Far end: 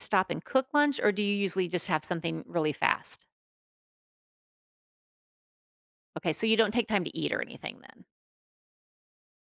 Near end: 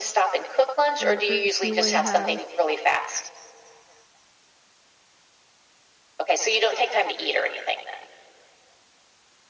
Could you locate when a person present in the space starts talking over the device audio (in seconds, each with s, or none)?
1.0 s